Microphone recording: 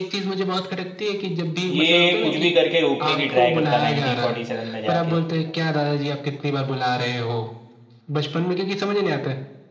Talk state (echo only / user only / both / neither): both